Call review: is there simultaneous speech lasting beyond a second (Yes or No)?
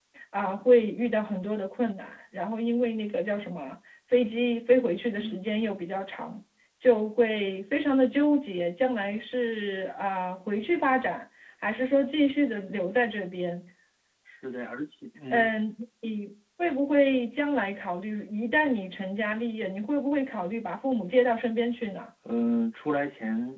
No